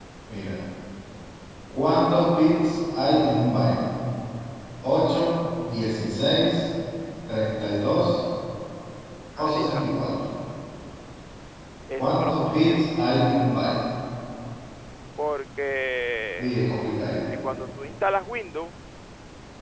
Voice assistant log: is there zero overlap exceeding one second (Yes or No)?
No